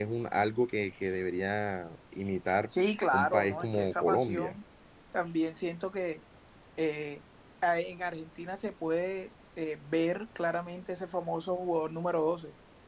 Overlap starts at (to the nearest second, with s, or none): 3 s